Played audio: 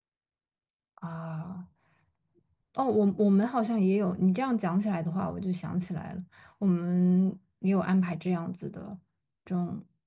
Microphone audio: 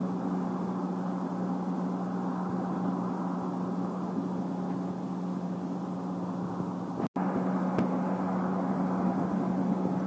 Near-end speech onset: none

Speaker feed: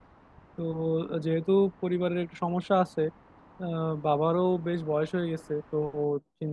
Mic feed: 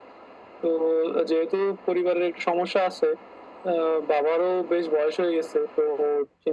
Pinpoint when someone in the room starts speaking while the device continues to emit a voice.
none

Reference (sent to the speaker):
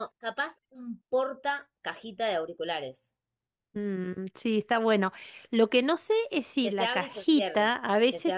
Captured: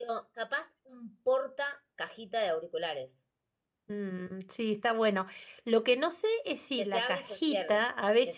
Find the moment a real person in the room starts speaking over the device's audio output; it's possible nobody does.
none

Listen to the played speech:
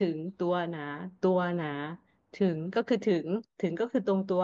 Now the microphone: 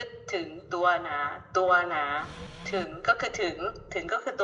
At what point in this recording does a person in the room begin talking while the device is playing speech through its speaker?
none

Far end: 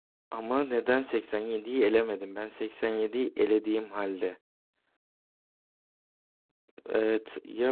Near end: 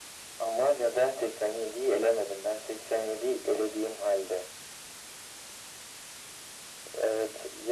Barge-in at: none

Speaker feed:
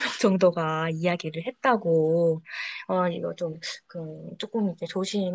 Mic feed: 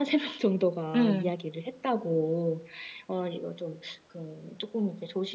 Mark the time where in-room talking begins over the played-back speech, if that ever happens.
0.9 s

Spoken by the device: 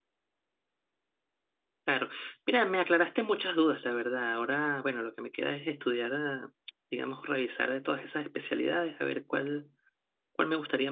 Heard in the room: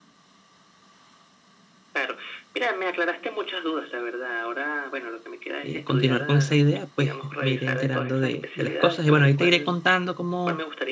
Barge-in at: 5.6 s

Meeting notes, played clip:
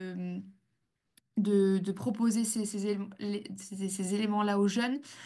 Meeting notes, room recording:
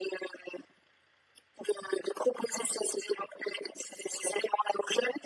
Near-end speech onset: none

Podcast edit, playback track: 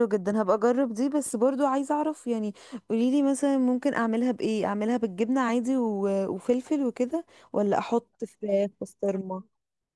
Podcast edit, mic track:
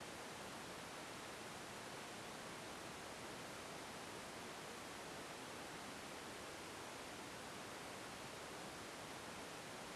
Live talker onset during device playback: none

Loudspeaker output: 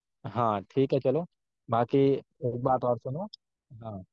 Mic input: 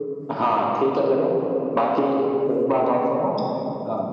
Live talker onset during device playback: none

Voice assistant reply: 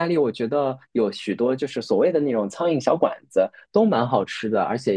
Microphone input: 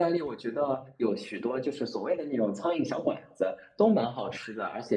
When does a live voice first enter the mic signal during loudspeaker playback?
none

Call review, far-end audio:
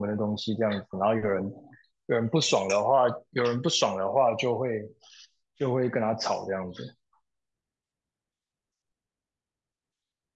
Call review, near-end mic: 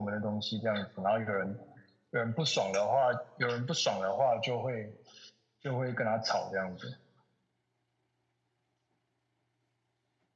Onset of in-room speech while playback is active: none

